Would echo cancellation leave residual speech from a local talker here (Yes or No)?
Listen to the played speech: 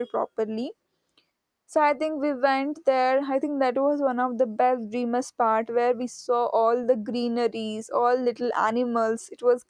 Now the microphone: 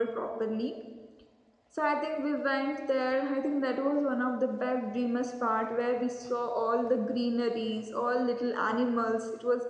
No